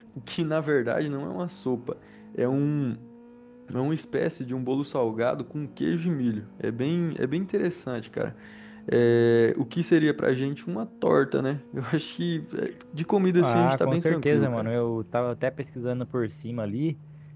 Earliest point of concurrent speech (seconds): 13.4 s

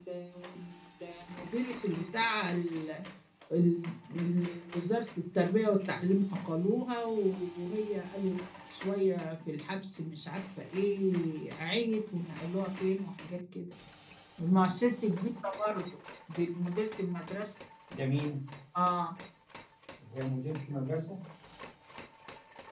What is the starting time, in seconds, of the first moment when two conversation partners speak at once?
none

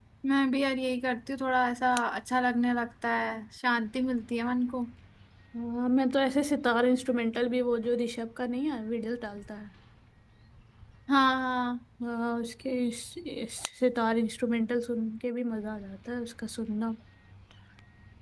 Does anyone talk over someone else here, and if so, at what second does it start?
none

